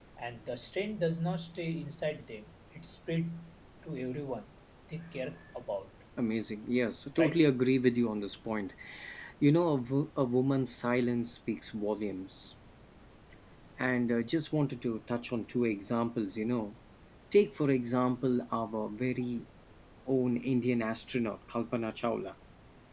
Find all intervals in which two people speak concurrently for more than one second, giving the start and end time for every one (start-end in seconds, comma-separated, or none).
none